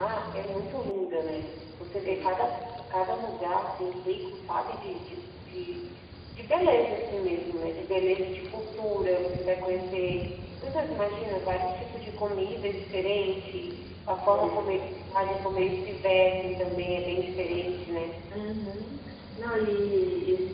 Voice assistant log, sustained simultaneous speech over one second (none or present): none